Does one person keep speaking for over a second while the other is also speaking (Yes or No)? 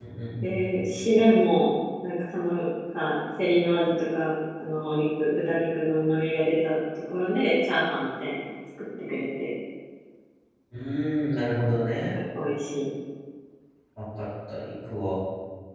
No